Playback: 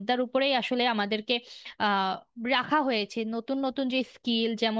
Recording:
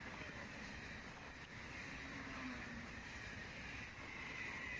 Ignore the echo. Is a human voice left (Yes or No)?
No